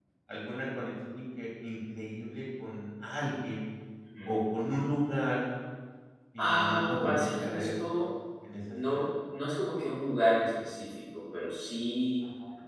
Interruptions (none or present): present